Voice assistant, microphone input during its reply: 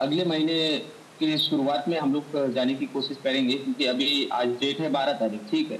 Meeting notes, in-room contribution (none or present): none